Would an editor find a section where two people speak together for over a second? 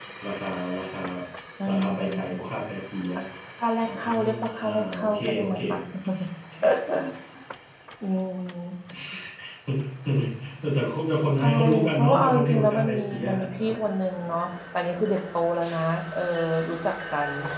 Yes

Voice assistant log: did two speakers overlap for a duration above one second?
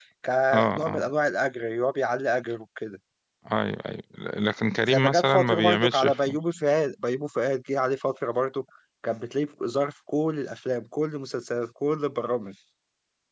Yes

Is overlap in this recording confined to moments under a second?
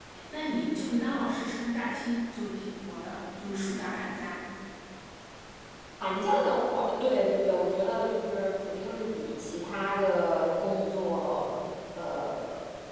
Yes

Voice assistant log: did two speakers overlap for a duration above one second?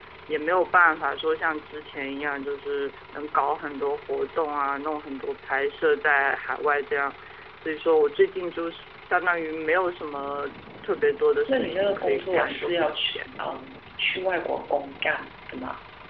Yes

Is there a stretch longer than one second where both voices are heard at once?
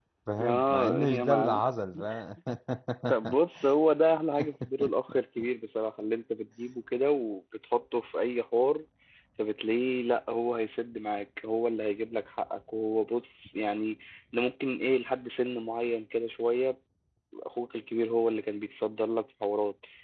Yes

